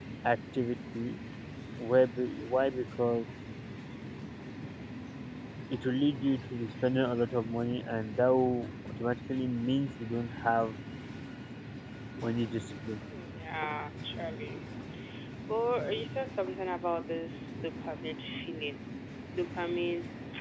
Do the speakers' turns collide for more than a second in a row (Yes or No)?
No